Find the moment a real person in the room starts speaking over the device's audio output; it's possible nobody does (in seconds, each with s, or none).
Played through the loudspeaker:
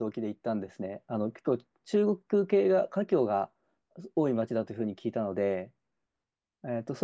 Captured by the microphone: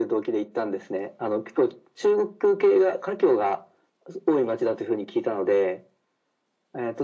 none